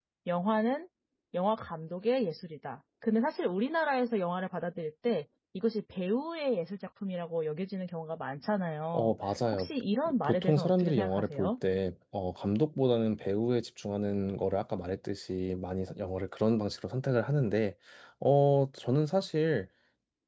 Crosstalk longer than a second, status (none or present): present